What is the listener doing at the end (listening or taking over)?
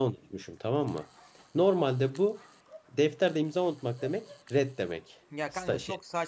taking over